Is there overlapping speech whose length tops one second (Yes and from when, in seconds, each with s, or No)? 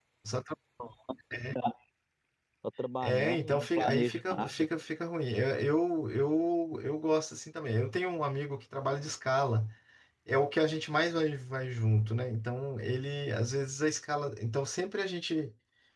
Yes, from 3.0 s